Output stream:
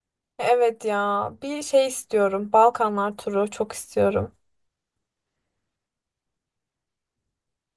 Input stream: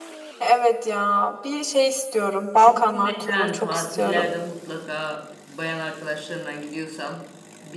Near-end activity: present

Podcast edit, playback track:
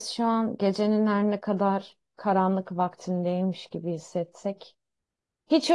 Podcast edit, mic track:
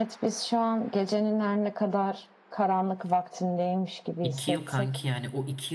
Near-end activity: present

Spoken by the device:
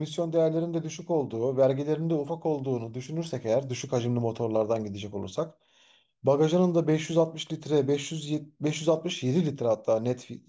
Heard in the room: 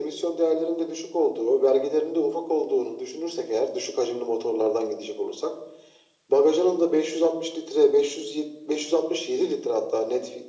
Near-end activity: none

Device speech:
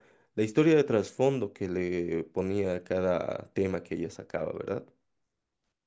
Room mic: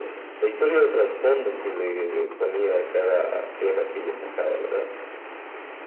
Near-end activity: none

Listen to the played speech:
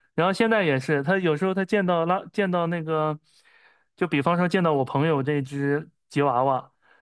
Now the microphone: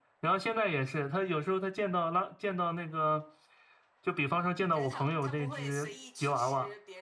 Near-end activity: present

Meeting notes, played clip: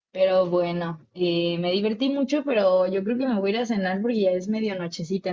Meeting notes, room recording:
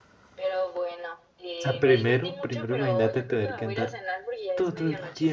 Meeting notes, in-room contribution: present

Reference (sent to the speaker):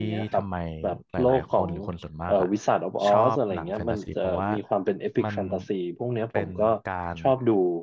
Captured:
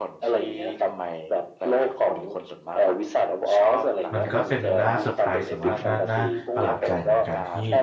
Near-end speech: present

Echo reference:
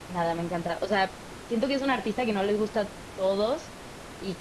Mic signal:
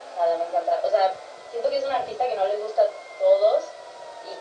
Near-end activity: none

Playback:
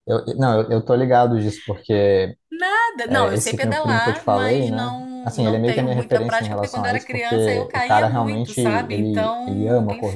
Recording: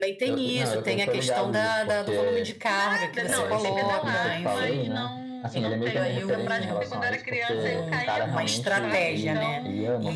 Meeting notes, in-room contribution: present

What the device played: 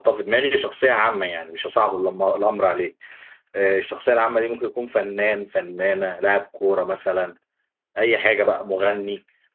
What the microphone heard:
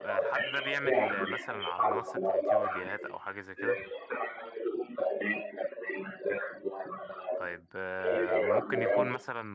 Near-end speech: present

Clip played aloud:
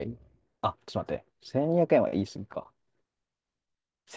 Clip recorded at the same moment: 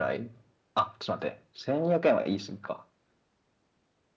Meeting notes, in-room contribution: none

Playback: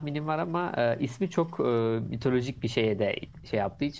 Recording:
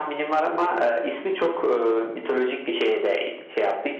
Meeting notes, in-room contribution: none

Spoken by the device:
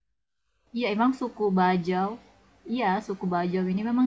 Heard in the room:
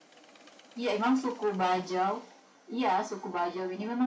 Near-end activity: none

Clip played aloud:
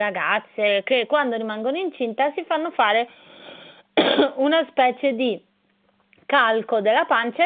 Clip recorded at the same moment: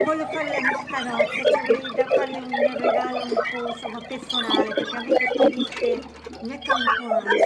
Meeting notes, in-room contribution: present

